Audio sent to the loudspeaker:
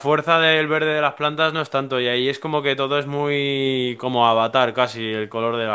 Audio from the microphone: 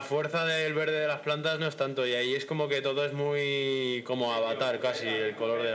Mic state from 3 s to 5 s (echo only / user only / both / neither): both